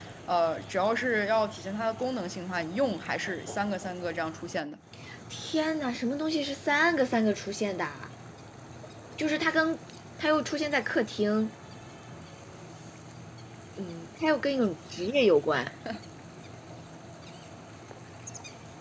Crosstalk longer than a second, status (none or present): none